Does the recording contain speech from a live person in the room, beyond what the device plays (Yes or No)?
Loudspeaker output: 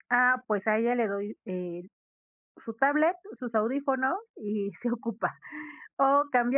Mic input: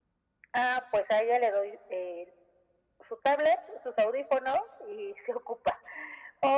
No